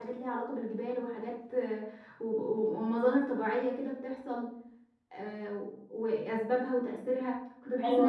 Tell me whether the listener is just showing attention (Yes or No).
No